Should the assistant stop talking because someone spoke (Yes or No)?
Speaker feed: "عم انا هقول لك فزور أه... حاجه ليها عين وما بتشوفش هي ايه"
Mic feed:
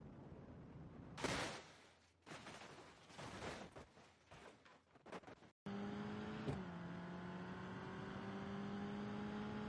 No